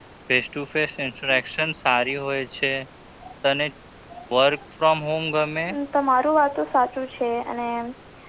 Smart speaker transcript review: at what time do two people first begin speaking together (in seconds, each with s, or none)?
none